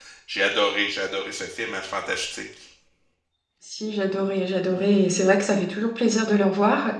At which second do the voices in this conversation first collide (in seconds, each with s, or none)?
none